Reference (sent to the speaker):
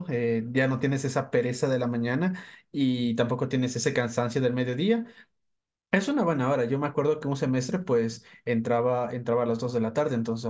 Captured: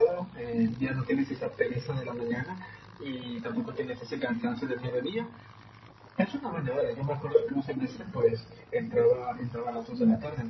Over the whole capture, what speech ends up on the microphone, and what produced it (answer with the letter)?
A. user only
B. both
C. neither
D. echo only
D